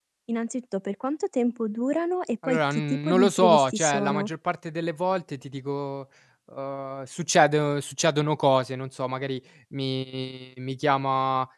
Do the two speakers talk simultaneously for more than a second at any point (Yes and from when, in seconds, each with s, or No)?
Yes, from 2.4 s